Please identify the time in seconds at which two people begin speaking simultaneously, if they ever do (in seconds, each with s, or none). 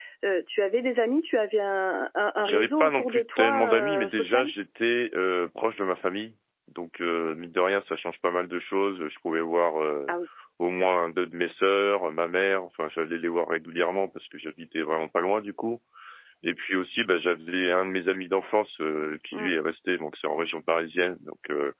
2.4 s